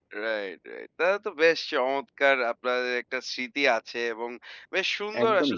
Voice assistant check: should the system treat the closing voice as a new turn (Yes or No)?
No